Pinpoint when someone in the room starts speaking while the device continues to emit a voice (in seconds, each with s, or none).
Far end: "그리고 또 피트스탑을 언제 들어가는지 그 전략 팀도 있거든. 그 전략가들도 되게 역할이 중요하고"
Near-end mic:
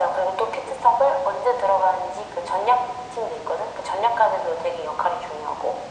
none